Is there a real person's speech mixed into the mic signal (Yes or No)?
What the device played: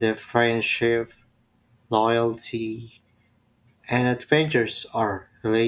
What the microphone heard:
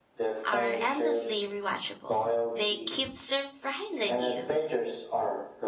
Yes